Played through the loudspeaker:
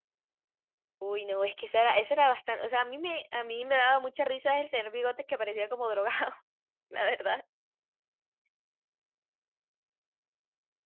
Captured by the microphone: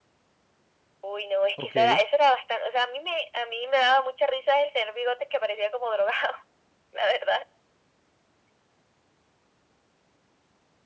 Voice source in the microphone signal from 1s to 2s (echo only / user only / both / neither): both